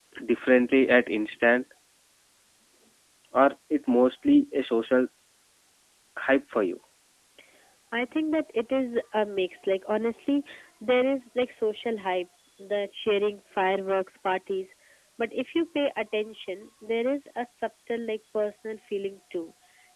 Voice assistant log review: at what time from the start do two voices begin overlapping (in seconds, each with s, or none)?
none